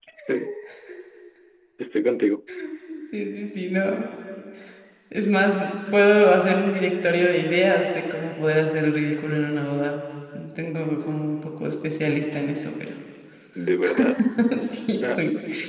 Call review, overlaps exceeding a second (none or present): none